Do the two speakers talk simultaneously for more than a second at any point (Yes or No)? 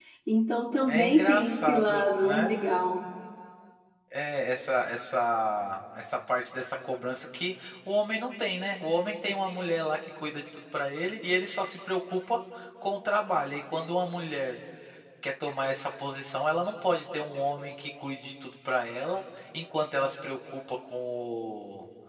Yes